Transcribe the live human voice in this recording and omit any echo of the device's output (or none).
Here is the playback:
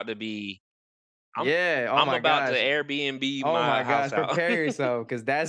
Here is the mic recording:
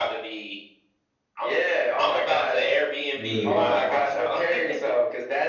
Dude.